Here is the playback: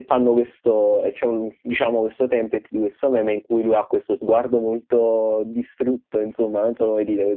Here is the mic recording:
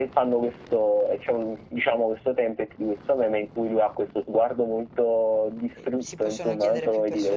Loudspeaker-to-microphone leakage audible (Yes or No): Yes